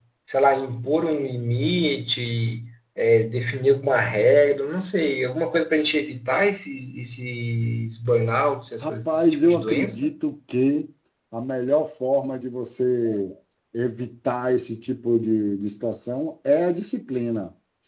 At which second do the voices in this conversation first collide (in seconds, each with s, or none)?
8.8 s